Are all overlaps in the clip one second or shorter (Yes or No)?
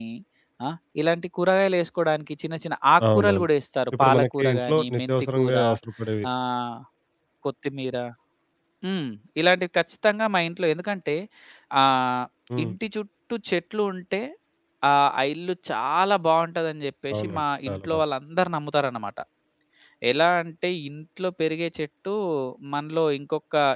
No